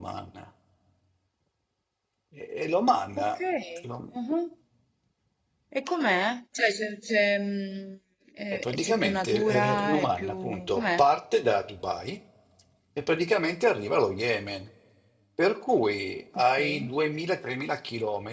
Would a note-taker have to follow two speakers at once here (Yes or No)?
Yes